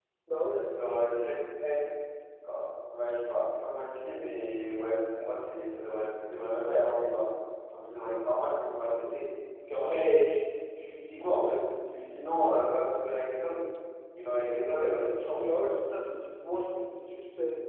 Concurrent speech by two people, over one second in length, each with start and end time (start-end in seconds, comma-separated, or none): none